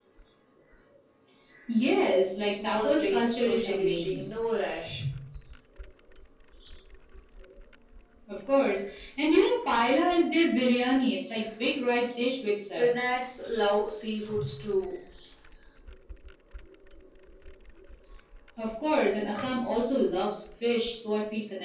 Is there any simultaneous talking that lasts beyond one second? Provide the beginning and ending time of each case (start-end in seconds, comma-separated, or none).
2.5-4.2